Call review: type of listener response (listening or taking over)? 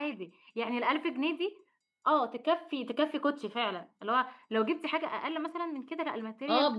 taking over